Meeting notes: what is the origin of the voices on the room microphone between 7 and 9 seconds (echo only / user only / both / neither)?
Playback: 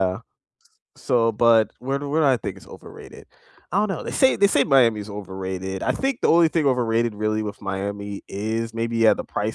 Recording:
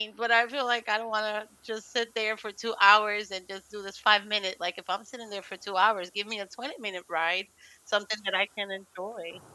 user only